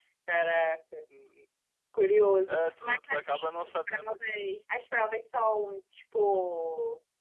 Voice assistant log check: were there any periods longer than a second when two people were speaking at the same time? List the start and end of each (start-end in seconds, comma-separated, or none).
2.5-4.1